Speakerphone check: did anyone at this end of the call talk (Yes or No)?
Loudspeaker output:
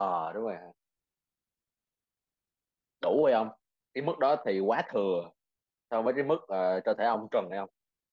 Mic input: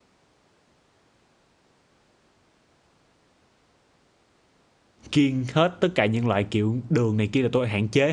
Yes